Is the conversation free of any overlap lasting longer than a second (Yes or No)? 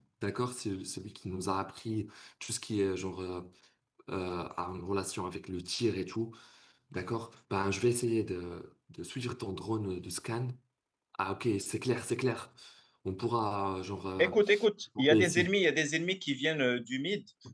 Yes